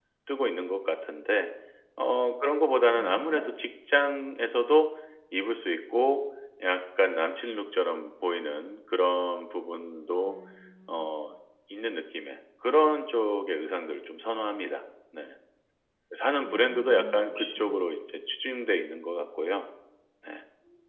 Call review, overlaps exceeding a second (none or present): present